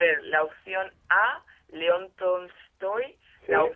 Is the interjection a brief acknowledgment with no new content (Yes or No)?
Yes